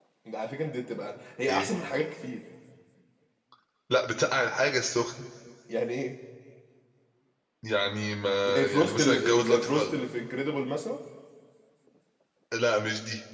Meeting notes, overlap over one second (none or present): present